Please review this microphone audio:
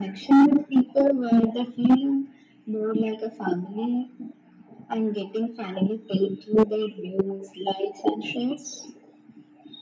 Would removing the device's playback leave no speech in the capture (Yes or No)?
Yes